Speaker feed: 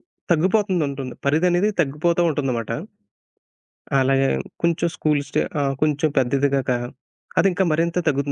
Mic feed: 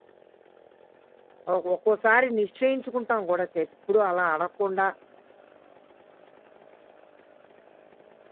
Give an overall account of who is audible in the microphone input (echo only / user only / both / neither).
user only